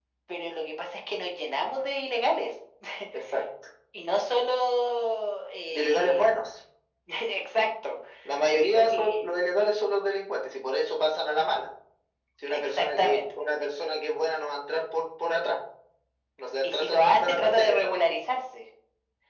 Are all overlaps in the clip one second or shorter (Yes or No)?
No